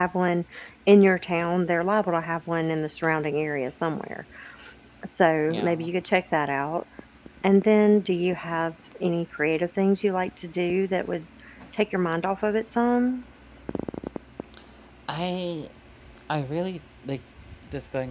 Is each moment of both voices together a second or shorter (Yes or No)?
Yes